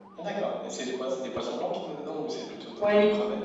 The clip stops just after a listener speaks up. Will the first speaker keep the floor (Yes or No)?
No